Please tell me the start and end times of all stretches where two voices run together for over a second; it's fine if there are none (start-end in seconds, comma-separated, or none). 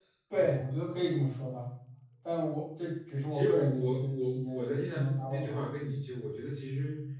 3.3-5.7